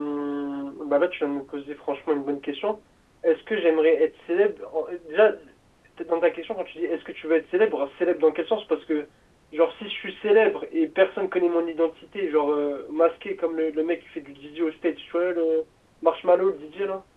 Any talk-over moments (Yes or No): No